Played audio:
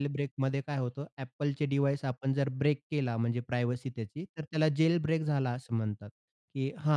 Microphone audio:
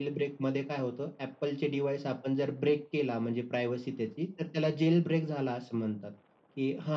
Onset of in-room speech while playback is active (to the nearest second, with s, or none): none